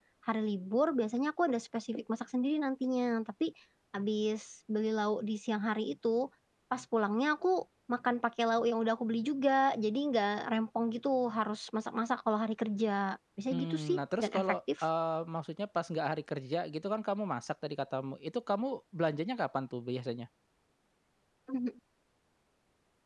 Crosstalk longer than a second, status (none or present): present